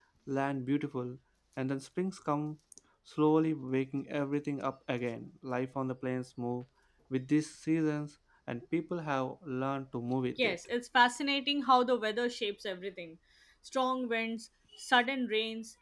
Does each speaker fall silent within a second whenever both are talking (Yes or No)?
Yes